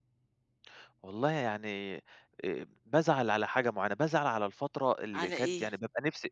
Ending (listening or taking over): listening